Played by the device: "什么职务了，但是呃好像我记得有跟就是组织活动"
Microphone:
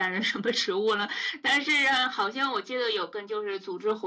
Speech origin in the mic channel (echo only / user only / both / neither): echo only